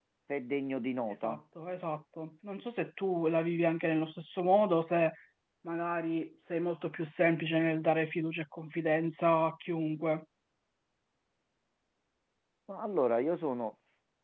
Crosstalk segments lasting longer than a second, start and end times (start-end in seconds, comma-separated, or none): none